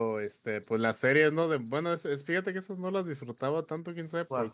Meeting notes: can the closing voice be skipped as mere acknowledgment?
Yes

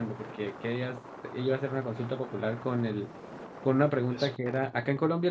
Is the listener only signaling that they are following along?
Yes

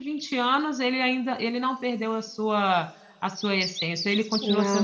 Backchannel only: No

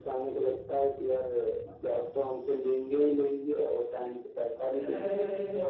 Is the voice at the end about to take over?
Yes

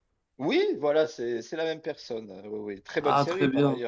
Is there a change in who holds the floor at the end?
Yes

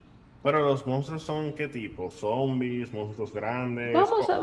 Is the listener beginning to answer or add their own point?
Yes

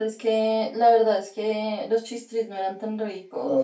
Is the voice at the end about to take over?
Yes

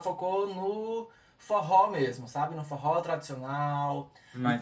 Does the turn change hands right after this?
No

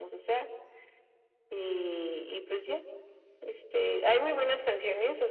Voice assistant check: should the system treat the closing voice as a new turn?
No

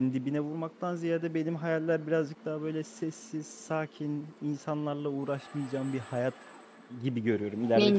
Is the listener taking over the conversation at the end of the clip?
No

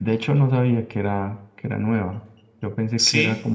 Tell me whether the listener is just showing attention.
Yes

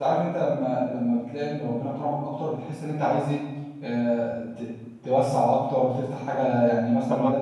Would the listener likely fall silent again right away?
Yes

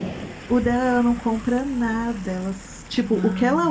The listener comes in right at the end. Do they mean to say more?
No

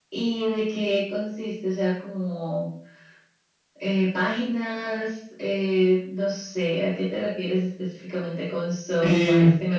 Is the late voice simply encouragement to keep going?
No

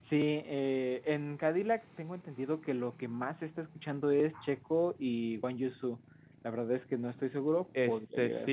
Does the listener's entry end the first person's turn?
Yes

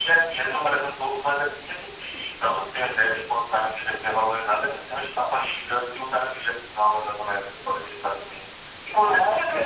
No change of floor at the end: Yes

